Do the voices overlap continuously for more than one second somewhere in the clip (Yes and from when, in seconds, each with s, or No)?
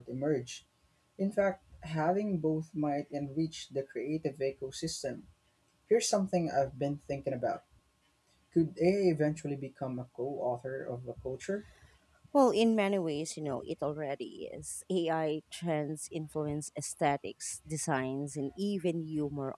No